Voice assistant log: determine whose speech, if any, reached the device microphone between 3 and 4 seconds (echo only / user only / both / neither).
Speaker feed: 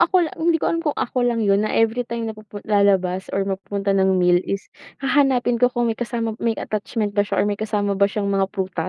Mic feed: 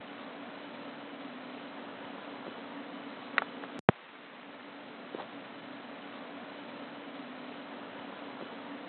neither